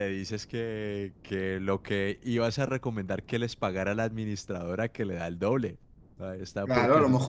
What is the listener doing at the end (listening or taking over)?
taking over